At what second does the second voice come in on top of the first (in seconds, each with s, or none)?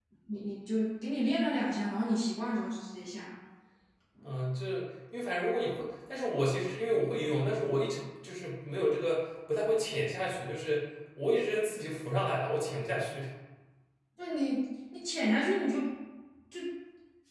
none